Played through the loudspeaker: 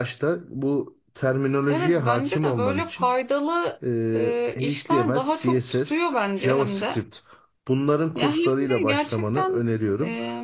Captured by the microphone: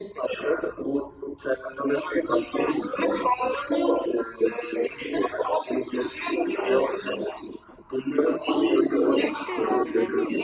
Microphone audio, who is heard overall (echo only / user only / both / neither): both